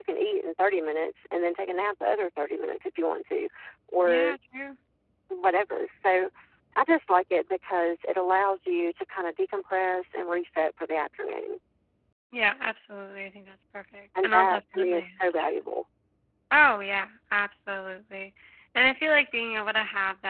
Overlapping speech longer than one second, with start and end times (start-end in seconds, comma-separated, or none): 14.2-15.5